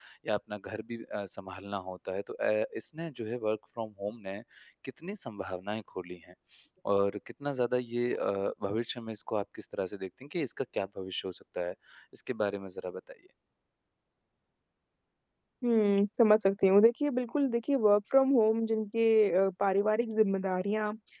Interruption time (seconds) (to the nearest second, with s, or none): none